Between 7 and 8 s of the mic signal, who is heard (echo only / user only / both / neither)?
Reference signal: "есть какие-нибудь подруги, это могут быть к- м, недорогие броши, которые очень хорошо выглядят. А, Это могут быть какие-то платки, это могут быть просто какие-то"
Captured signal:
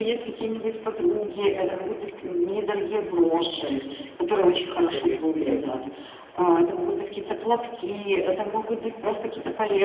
echo only